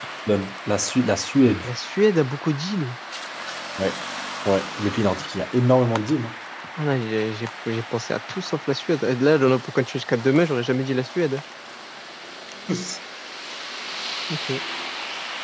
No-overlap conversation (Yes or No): Yes